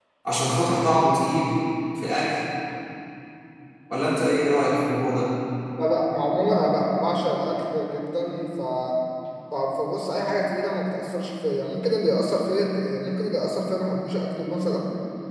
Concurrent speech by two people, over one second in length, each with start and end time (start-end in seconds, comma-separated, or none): none